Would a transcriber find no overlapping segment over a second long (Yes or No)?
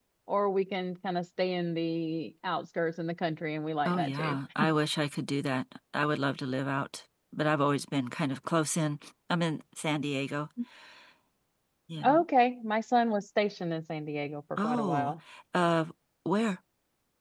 Yes